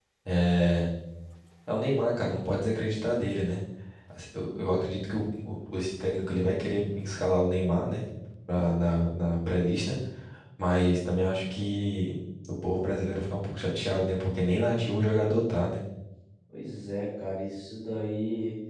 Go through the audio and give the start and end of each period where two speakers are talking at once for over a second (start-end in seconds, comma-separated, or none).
none